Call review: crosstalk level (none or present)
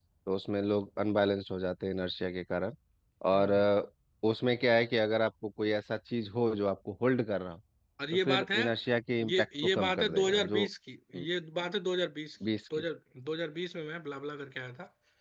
present